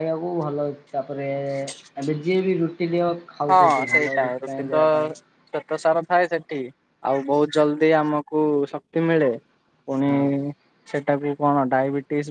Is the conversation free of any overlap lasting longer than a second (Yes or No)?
No